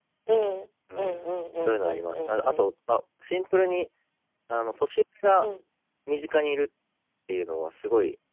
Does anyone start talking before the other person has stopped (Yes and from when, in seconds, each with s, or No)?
Yes, from 1.0 s